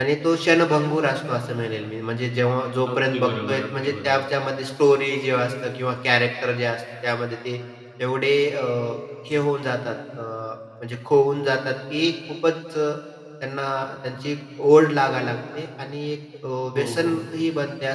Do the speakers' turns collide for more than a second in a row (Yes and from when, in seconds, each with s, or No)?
Yes, from 2.9 s